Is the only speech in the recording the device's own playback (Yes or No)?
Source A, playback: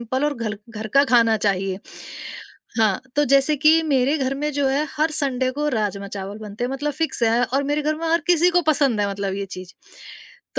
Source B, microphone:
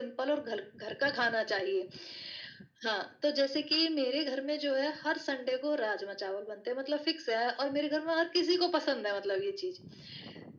Yes